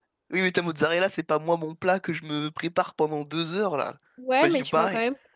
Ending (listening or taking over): taking over